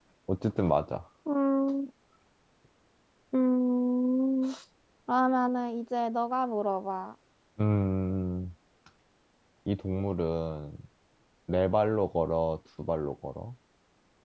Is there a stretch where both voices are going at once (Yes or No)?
No